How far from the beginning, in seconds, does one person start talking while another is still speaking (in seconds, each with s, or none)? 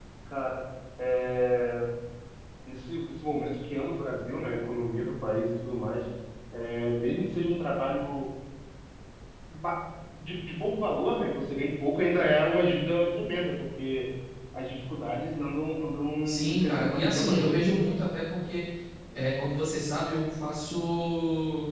16.2 s